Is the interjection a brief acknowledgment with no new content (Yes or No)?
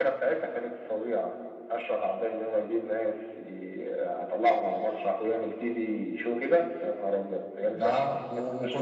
No